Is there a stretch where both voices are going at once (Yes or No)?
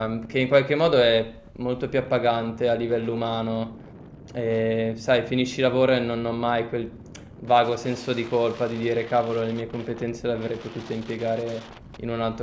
No